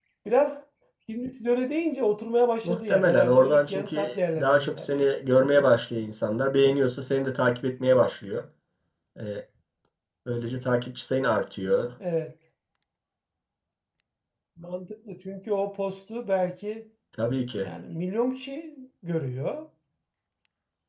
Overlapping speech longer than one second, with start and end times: 2.6-4.9

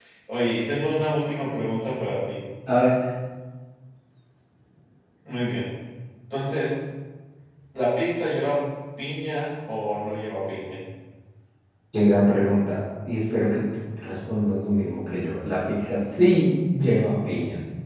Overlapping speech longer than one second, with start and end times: none

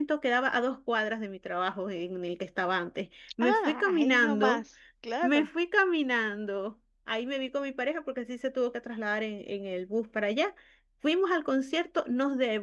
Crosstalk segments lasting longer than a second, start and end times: 3.4-4.6

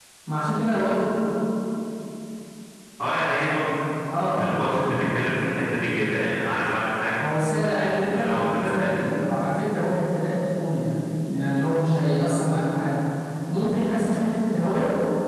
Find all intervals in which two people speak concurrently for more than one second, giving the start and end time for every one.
7.8-9.1

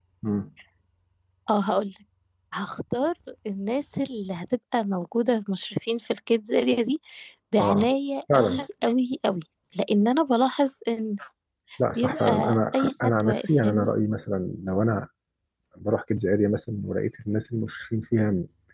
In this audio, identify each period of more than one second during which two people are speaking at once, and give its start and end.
12.0-13.9

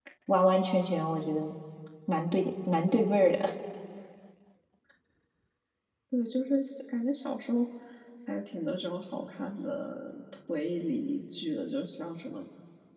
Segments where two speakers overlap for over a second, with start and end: none

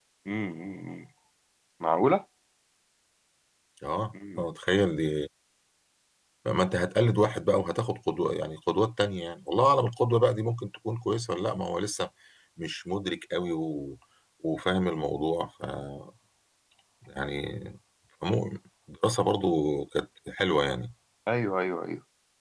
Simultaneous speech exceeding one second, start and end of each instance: none

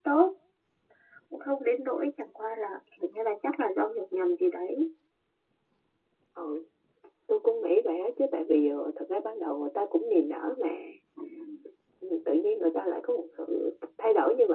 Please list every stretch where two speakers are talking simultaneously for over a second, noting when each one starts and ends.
none

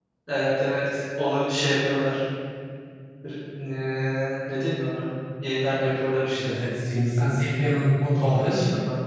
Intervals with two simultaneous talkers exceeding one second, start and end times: none

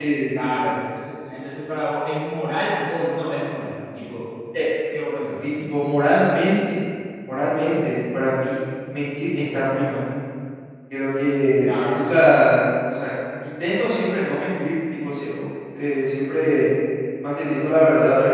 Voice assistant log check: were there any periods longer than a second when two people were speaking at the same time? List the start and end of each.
none

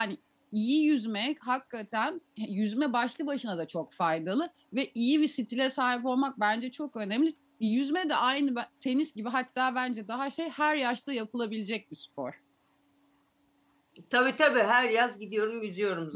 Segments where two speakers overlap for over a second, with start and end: none

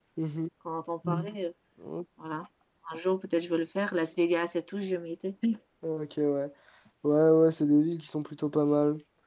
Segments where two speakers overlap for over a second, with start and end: none

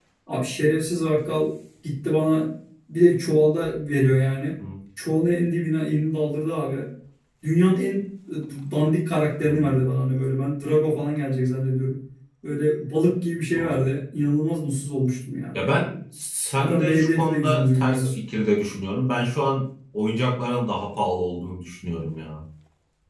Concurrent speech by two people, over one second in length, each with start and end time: 16.6-18.1

